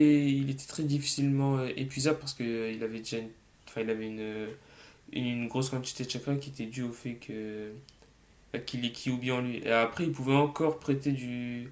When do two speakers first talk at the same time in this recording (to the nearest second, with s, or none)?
none